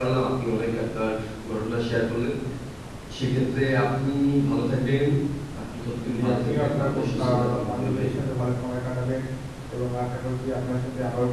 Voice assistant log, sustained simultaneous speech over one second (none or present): present